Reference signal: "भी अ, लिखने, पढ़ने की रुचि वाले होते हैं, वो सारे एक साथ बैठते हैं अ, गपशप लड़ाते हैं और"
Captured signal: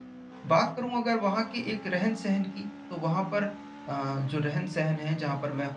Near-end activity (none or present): present